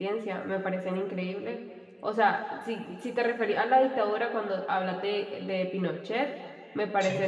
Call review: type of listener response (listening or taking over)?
listening